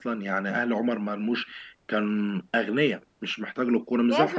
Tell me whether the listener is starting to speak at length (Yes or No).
Yes